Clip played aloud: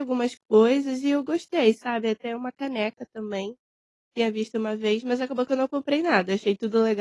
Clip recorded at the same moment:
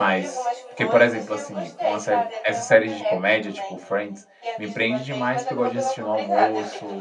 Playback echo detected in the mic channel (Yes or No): Yes